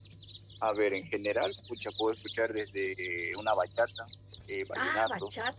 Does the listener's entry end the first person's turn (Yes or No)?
Yes